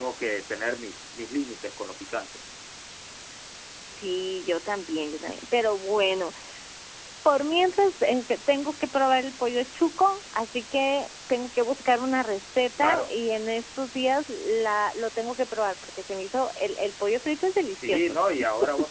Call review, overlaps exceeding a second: none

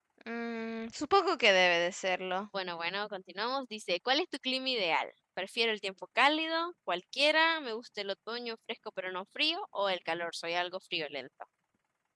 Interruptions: none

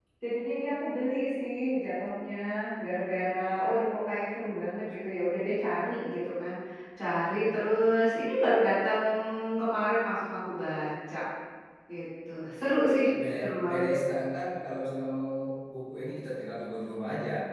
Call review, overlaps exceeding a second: none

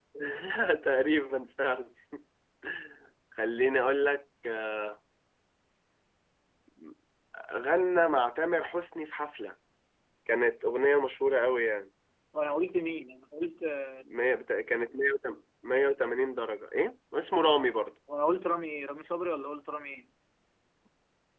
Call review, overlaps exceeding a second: none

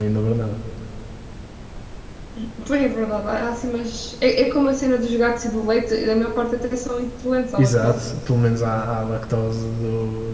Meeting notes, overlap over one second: none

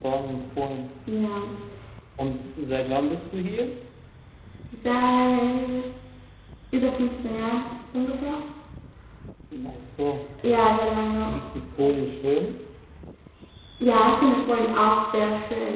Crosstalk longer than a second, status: none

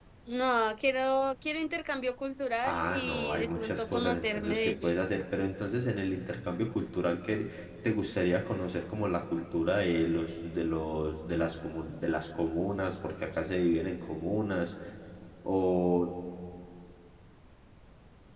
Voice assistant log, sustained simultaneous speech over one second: present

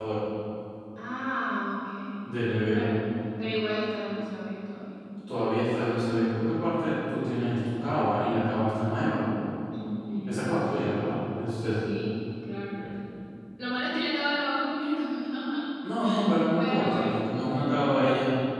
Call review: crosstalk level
present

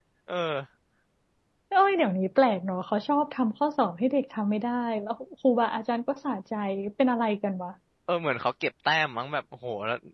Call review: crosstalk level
none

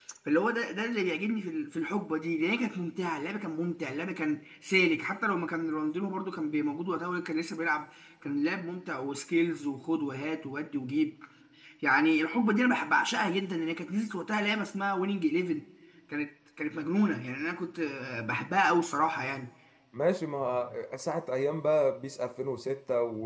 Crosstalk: none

